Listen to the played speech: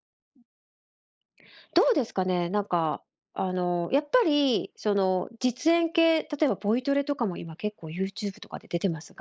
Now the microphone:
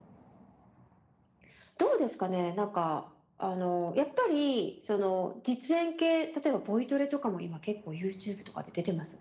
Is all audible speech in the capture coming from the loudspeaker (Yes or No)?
Yes